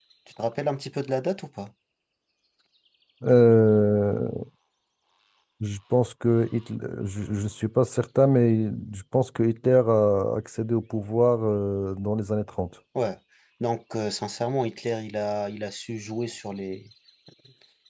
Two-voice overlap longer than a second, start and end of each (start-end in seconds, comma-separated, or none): none